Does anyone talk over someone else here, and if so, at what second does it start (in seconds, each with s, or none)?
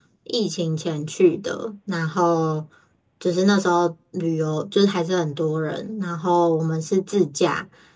none